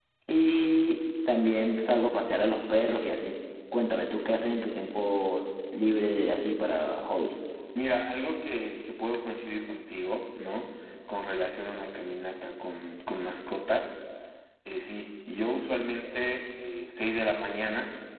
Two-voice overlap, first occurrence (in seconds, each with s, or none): none